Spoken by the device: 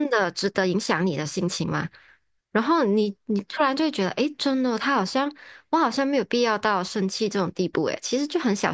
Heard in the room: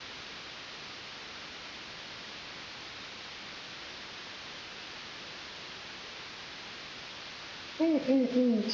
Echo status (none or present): none